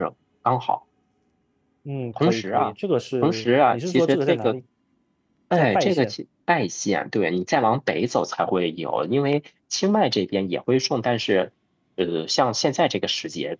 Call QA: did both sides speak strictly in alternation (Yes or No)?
No